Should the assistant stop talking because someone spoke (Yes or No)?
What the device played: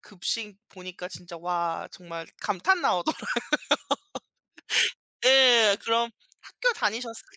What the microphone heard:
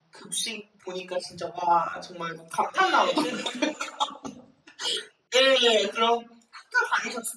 Yes